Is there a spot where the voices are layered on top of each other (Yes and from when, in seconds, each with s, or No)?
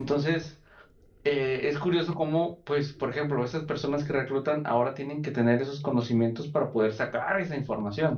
No